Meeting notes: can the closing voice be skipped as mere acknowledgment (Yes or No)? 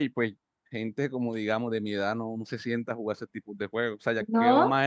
Yes